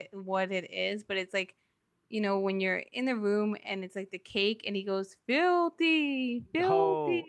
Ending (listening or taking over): taking over